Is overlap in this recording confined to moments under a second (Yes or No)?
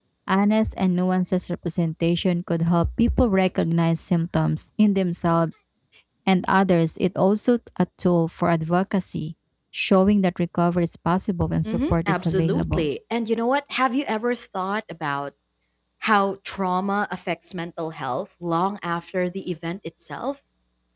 No